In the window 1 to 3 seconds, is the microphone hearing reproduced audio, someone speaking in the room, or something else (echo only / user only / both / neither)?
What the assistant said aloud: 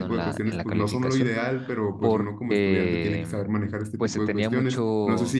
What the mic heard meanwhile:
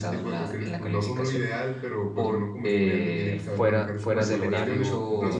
echo only